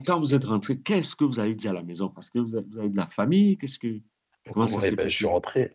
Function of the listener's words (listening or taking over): taking over